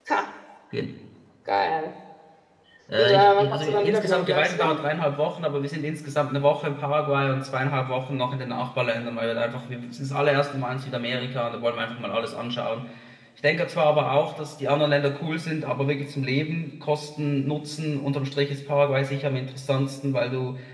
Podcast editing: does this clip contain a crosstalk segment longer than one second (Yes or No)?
Yes